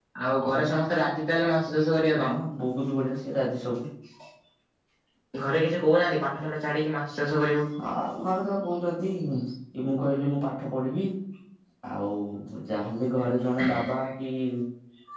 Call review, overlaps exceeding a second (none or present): none